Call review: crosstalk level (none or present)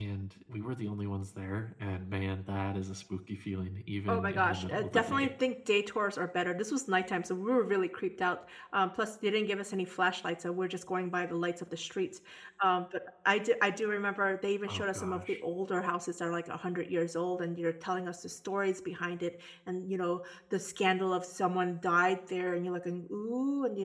present